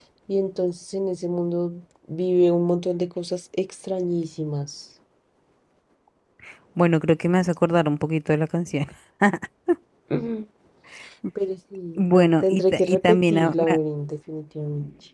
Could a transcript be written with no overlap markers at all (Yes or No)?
No